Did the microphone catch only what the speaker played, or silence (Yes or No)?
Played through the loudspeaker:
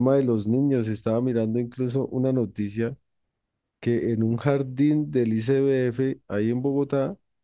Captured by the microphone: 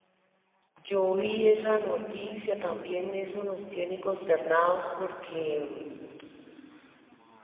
No